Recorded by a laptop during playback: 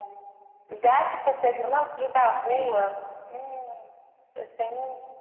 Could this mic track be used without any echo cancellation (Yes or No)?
No